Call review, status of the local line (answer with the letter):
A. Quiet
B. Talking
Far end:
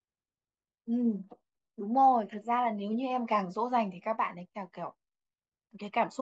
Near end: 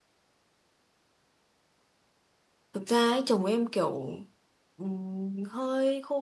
B